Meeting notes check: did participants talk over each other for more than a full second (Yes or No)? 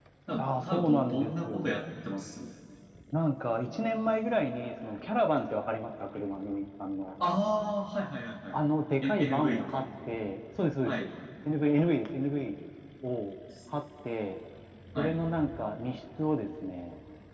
Yes